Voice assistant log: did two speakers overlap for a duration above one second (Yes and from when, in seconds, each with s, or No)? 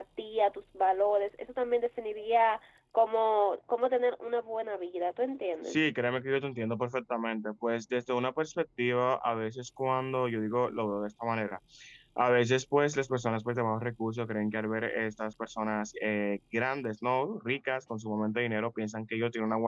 No